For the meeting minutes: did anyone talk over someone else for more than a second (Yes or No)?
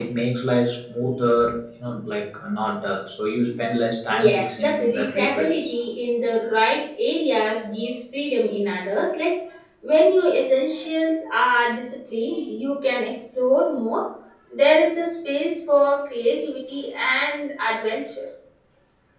Yes